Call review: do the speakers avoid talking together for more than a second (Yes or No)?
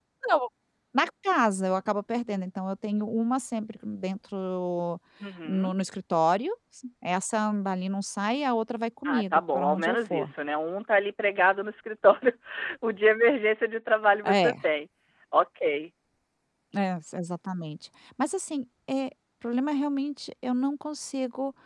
No